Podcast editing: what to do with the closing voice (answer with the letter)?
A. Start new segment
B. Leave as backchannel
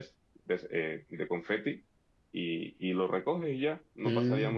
A